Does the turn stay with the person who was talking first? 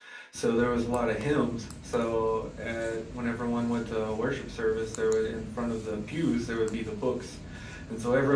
Yes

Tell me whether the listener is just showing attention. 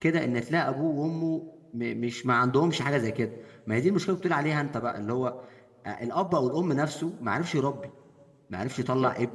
Yes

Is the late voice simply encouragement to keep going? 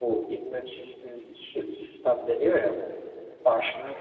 Yes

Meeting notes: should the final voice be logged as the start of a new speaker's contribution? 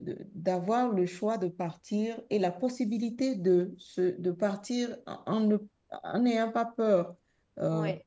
No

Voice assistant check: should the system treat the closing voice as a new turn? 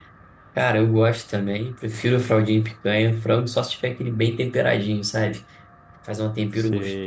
No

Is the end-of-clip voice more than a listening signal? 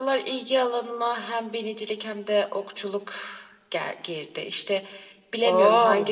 No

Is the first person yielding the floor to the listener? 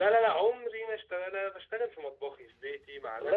No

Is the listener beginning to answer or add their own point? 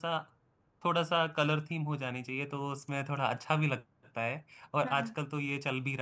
No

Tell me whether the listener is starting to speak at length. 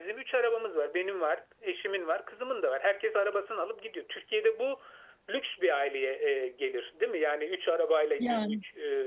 No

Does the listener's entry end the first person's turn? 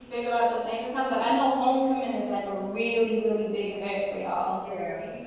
Yes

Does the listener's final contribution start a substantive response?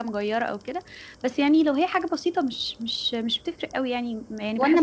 Yes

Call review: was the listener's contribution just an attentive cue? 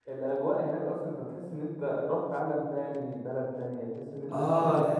No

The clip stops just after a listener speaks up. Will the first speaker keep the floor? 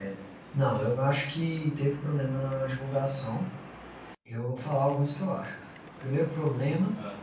Yes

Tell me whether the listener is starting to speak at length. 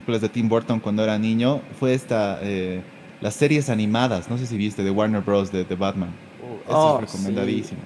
Yes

